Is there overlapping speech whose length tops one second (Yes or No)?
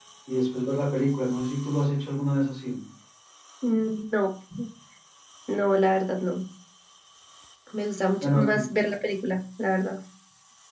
No